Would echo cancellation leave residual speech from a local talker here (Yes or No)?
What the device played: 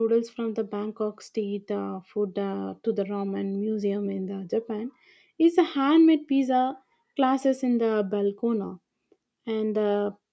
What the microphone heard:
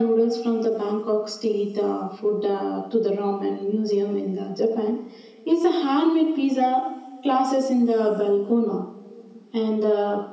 No